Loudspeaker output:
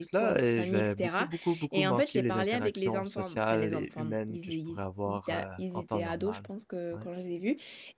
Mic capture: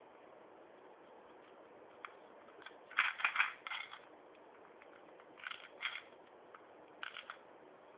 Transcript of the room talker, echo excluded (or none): none